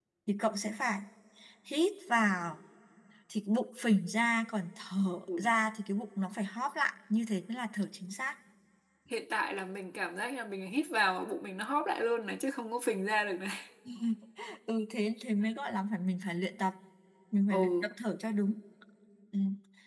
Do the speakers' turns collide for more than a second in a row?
No

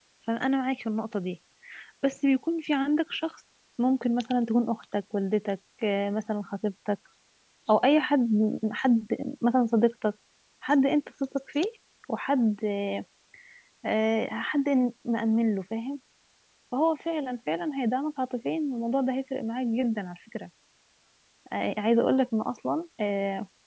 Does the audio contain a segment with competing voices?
No

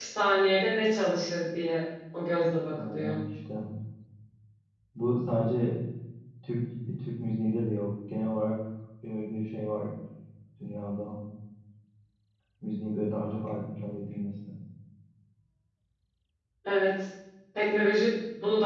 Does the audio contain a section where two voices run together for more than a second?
No

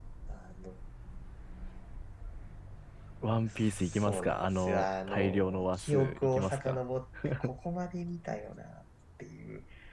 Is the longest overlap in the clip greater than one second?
Yes, from 3.5 s

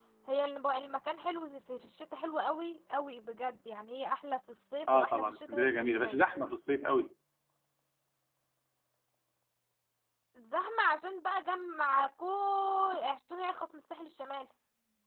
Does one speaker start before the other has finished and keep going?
Yes, from 4.9 s

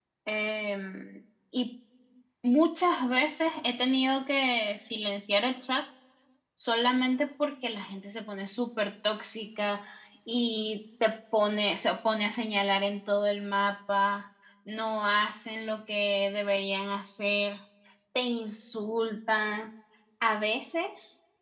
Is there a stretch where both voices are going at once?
No

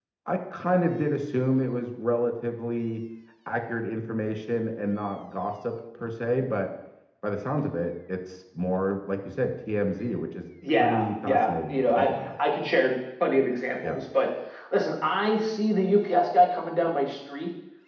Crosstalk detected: Yes, from 10.6 s

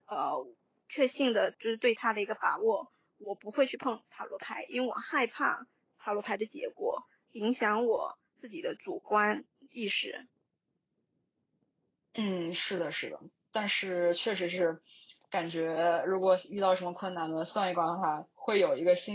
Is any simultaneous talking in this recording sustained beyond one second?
No

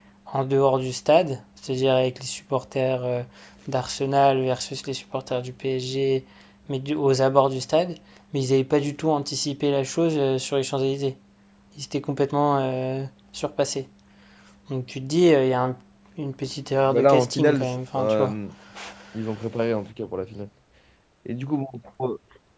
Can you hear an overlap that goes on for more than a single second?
Yes, from 16.9 s

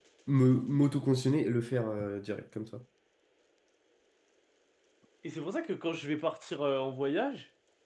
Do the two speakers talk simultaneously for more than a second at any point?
No

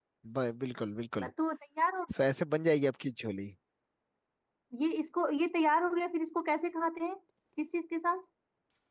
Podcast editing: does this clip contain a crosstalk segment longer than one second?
No

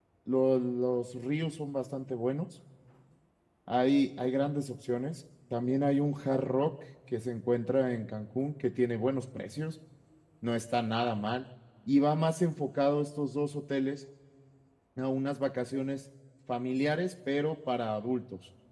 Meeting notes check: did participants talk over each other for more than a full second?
No

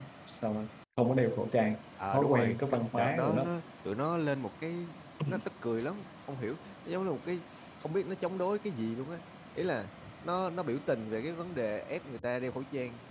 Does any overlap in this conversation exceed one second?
Yes, from 2.1 s

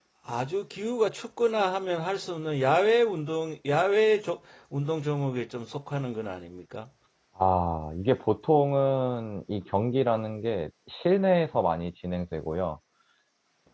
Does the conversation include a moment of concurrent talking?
No

